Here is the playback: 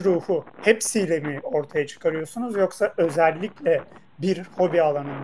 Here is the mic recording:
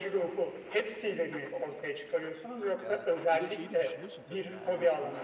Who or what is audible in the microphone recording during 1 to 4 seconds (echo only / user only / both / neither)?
both